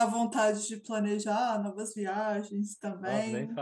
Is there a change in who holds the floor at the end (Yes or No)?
Yes